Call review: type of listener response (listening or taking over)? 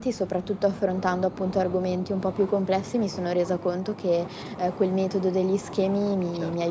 listening